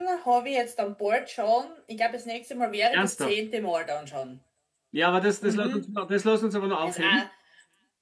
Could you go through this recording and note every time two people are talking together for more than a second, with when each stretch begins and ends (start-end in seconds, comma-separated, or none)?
none